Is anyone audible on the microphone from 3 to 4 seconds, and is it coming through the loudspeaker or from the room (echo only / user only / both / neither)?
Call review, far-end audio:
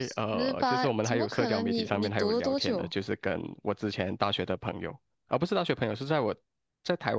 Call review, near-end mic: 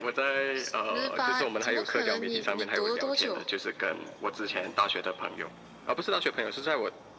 echo only